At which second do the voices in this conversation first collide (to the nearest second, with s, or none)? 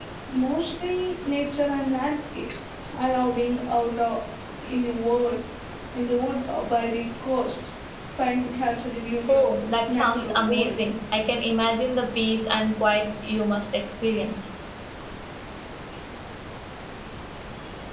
9 s